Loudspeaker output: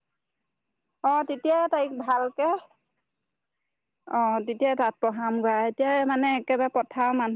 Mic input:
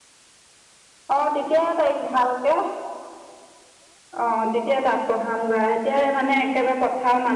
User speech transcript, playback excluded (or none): none